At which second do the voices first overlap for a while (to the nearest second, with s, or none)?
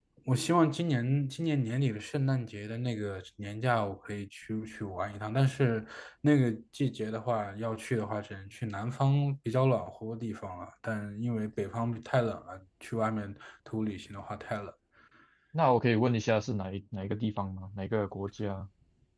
none